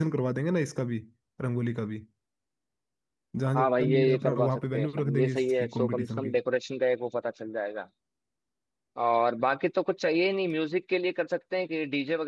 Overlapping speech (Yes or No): Yes